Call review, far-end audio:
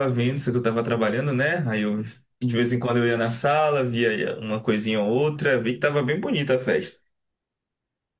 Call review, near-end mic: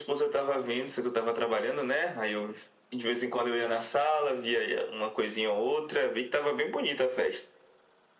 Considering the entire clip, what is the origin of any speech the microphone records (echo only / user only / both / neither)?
echo only